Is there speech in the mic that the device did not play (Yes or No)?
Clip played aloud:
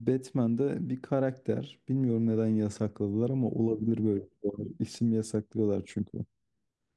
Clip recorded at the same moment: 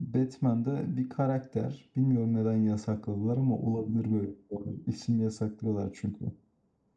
No